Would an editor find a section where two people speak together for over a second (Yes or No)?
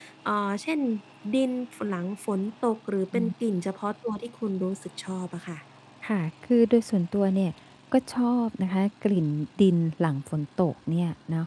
No